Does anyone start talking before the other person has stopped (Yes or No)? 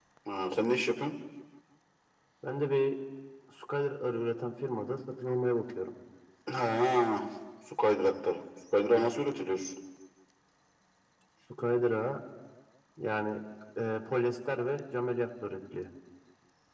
No